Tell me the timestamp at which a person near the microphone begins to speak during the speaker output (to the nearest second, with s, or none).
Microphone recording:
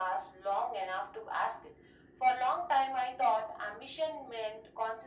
none